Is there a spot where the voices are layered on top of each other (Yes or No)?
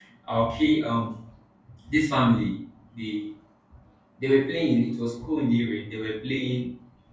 No